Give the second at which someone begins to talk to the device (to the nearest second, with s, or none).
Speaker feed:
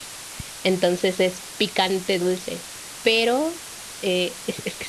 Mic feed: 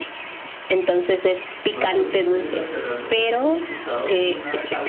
2 s